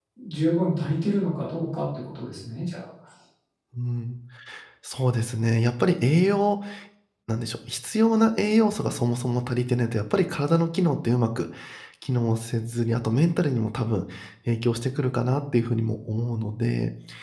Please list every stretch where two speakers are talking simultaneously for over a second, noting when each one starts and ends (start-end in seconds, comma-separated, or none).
none